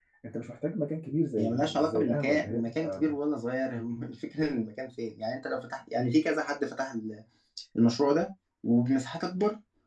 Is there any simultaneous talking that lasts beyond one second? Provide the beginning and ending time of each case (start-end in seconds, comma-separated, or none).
1.4-3.1